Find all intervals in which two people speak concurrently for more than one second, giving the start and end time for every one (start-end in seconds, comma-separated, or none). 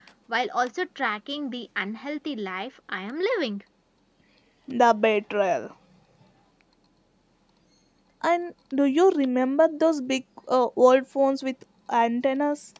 none